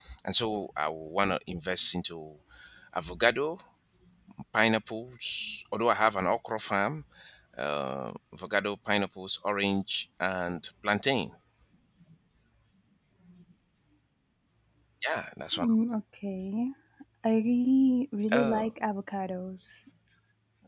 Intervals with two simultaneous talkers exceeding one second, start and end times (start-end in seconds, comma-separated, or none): none